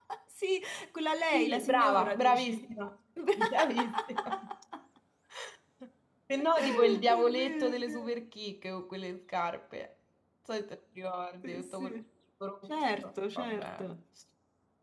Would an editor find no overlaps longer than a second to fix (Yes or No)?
No